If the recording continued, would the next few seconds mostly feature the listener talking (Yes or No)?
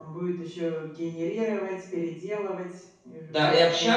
Yes